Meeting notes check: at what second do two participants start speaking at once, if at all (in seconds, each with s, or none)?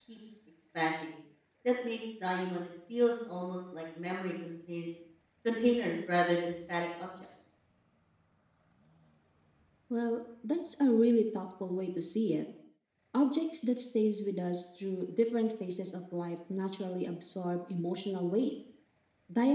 none